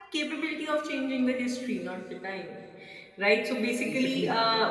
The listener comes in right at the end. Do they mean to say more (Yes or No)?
No